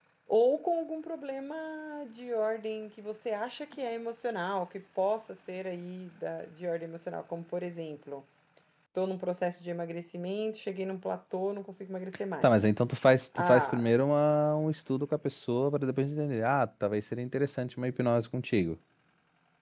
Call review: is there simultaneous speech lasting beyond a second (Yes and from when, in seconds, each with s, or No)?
No